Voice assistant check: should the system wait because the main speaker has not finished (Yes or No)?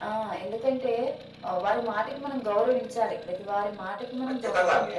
No